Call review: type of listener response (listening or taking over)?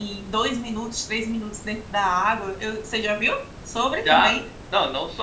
taking over